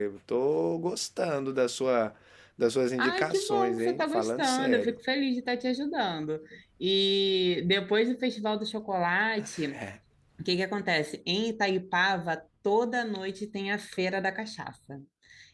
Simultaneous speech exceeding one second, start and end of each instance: 3.0-5.0

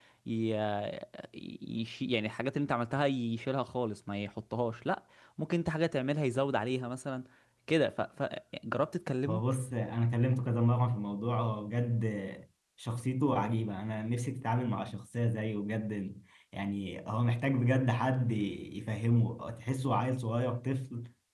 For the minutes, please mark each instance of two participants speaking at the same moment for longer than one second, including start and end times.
none

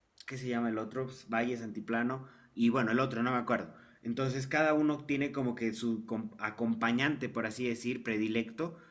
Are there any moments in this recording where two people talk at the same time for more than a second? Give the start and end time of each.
none

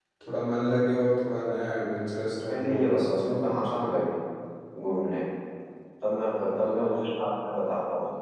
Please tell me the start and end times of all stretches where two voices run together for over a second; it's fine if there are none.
2.5-4.1

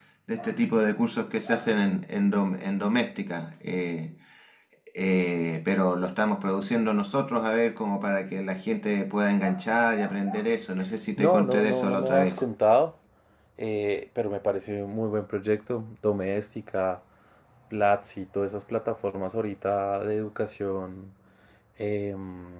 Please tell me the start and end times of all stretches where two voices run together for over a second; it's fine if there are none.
11.2-12.4

